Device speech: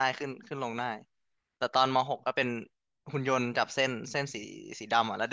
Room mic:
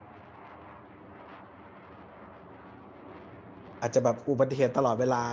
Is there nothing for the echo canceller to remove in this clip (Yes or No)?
Yes